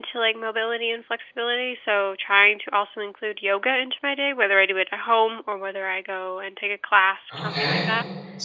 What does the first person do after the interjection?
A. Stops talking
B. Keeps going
A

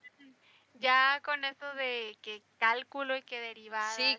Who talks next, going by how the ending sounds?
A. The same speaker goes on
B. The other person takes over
B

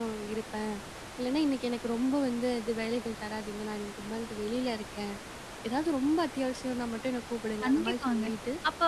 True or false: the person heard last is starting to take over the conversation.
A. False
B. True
B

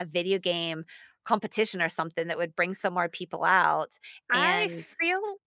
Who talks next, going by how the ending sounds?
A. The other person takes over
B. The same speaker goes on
A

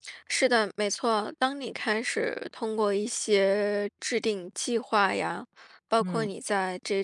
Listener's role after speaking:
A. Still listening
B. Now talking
A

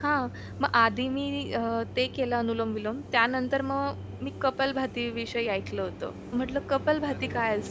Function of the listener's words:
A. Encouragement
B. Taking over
A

